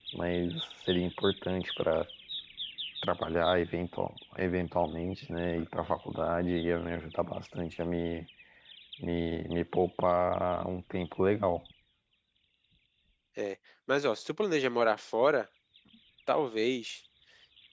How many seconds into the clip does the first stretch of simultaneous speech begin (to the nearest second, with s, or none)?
none